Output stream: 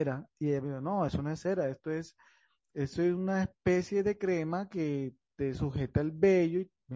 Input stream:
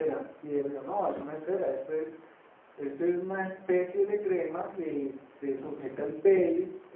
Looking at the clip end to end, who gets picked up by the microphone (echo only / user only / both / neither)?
echo only